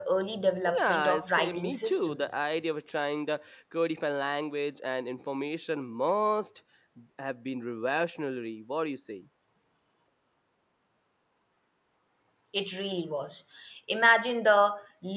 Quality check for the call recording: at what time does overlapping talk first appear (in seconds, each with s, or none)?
0.8 s